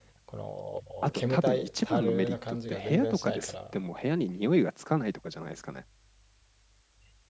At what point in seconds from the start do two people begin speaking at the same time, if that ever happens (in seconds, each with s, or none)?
1.1 s